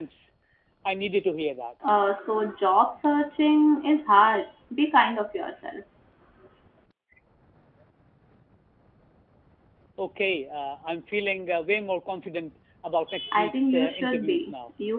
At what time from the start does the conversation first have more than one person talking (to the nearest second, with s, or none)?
13 s